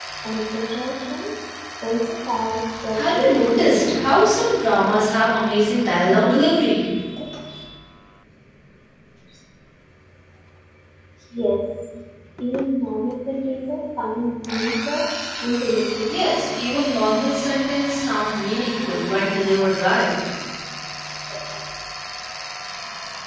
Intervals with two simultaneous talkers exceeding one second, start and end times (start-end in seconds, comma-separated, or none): 2.9-4.1